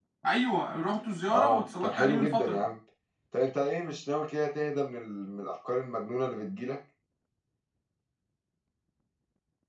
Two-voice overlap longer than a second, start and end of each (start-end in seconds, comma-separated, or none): 1.3-2.6